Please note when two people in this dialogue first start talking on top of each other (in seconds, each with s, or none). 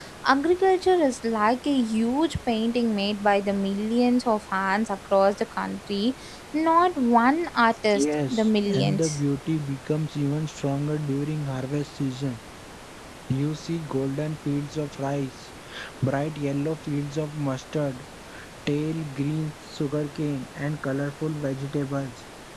7.8 s